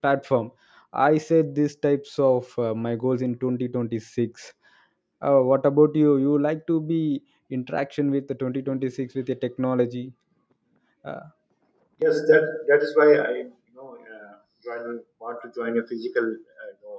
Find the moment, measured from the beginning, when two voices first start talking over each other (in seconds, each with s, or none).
none